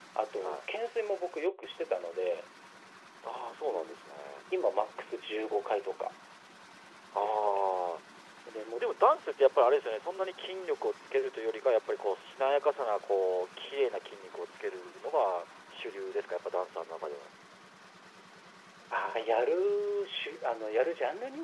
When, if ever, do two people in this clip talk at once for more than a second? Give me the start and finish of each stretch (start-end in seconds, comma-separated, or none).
none